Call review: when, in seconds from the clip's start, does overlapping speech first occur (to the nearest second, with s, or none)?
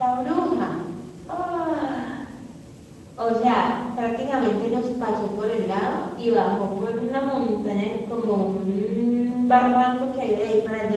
none